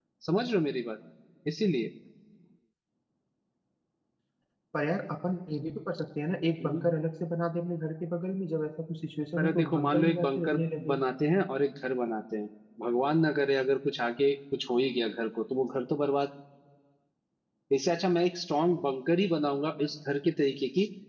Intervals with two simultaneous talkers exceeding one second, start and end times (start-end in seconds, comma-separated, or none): 9.4-11.0